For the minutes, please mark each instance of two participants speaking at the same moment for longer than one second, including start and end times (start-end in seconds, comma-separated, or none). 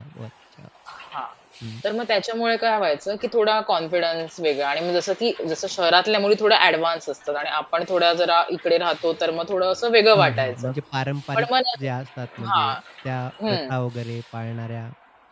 none